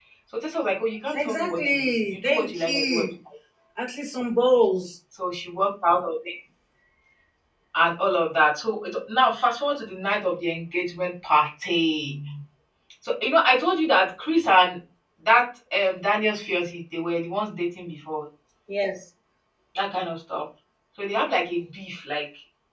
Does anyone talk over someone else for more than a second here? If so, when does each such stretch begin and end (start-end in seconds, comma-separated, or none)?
1.1-3.0